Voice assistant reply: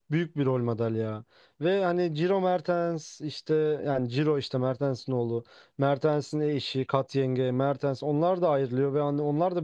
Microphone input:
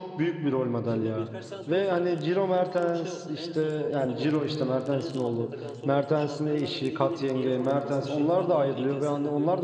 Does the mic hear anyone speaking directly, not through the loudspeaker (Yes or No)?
Yes